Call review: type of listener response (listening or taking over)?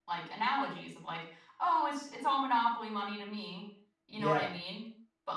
listening